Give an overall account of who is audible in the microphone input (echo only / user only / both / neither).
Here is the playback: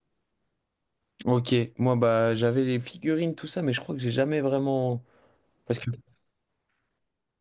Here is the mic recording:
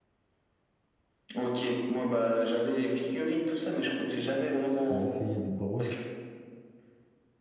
both